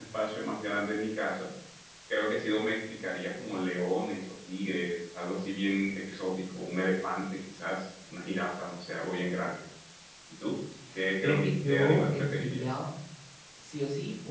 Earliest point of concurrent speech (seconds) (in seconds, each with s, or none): 11.2 s